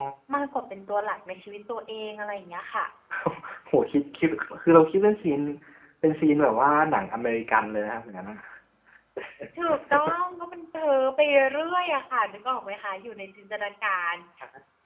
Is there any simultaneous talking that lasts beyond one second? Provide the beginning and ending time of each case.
none

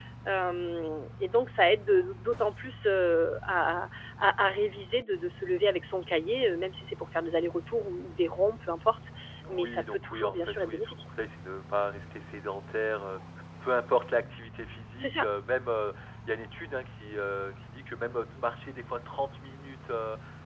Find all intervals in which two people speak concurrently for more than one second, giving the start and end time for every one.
9.5-11.0

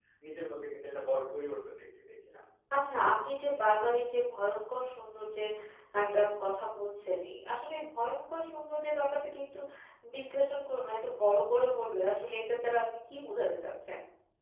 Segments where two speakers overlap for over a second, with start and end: none

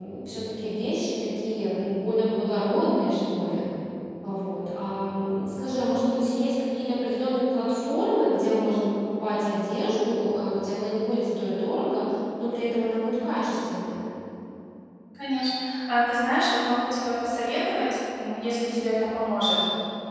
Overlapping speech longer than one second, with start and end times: none

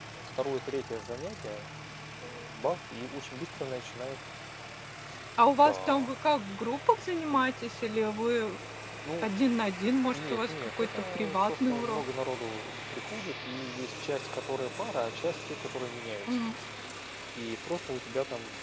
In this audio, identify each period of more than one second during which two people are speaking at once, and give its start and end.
10.1-12.0

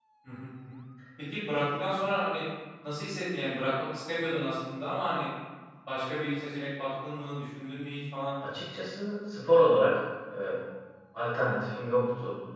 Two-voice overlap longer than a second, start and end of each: none

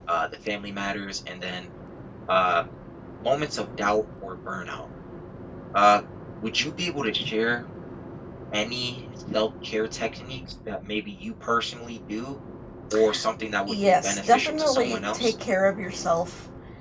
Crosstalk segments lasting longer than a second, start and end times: 13.7-15.3

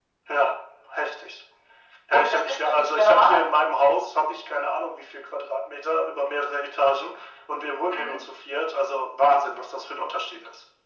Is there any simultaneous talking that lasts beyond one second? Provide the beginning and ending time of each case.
2.1-3.4

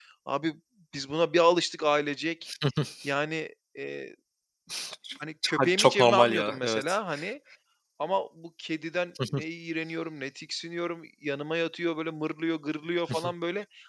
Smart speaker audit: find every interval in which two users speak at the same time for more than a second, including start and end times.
5.6-7.0

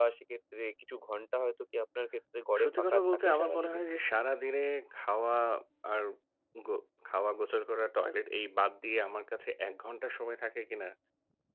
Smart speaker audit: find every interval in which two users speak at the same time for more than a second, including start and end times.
2.6-3.8

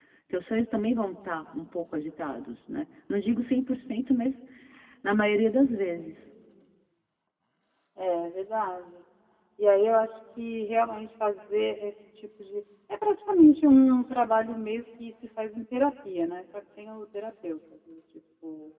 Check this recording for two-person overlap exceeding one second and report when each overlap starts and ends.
none

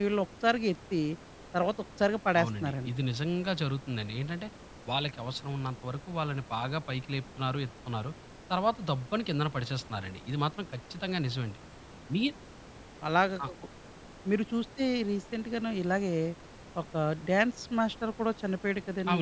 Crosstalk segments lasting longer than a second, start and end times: none

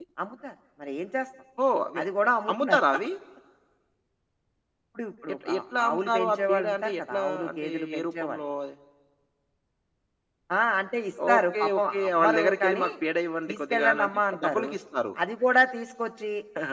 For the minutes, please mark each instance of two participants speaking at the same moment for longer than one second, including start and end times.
5.5-8.4, 11.3-12.8, 13.5-14.7

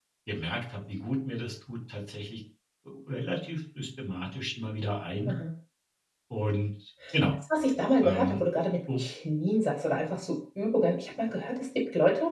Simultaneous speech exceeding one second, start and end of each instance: none

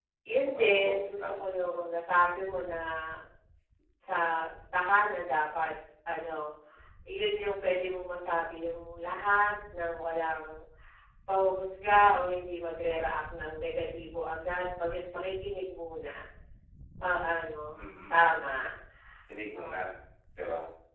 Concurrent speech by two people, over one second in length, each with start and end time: 0.6-1.8

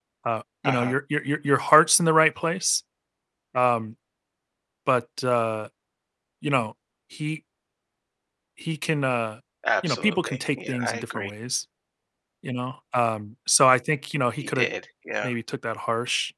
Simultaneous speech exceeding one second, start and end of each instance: 9.8-11.3

